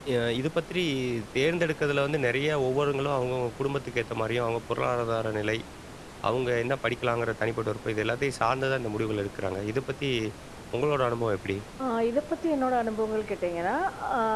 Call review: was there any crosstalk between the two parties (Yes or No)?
No